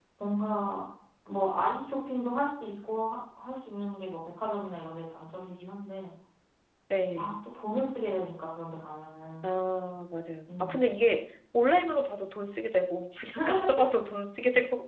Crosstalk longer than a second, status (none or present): none